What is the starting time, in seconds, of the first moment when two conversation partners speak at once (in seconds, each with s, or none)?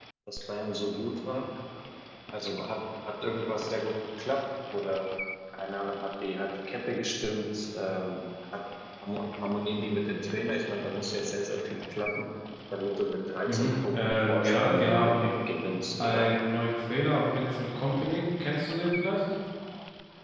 13.4 s